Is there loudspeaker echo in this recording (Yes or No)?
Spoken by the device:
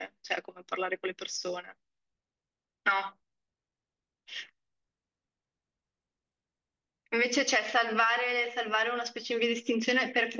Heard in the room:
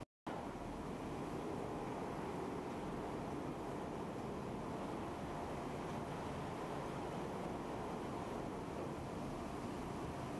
No